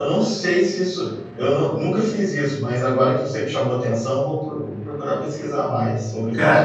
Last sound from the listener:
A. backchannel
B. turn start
B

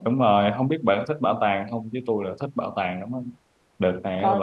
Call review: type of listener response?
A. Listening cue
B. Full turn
A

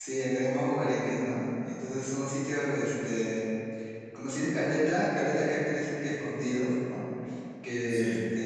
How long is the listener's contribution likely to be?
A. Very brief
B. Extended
A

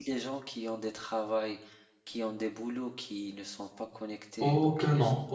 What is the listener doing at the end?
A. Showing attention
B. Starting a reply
B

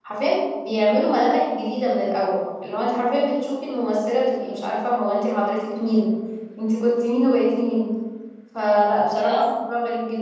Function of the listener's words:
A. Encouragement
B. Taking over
A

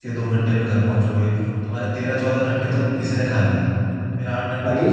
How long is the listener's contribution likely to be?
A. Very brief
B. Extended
A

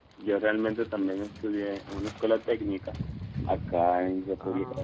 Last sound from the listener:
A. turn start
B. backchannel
B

